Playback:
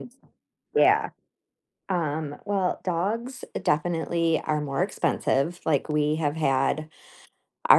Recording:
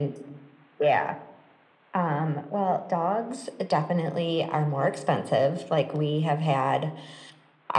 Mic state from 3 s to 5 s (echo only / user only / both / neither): echo only